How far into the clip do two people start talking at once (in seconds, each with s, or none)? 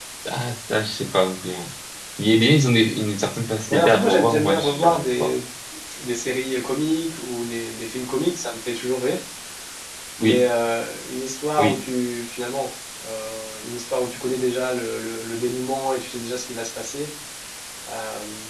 3.7 s